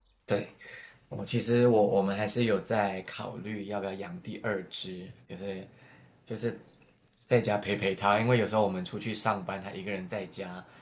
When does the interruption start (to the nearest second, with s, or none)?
none